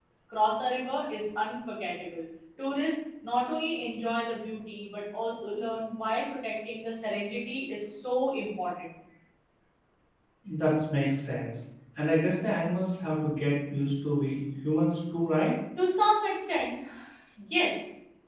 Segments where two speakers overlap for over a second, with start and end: none

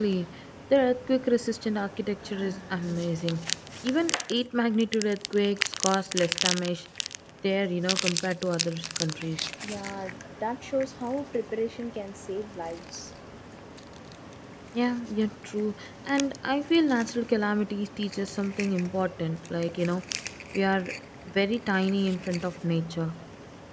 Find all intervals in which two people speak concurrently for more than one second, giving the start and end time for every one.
none

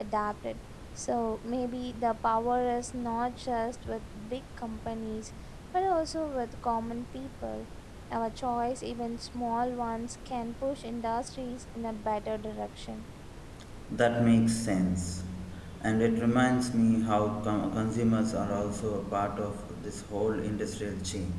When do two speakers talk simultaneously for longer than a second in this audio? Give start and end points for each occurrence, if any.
none

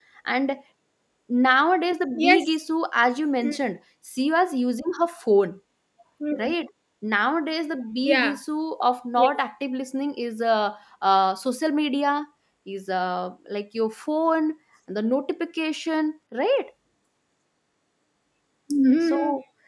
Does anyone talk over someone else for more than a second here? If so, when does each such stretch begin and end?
none

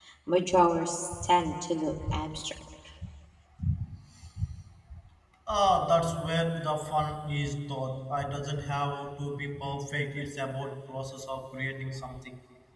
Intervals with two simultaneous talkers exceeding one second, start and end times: none

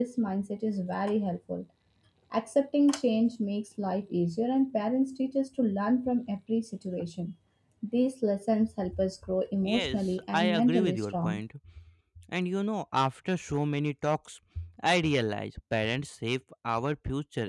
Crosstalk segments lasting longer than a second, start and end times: 9.7-11.4

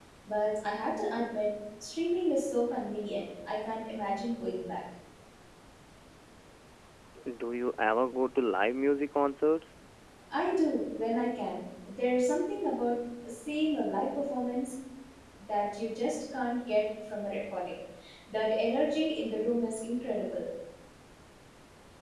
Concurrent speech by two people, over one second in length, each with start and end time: none

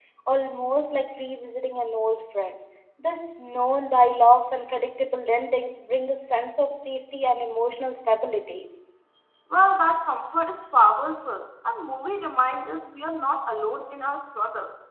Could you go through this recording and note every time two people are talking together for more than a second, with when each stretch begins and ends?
none

